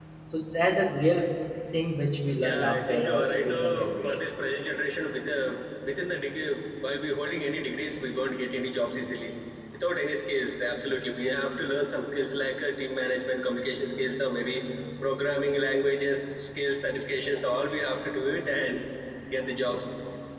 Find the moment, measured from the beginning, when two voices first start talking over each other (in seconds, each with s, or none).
2.4 s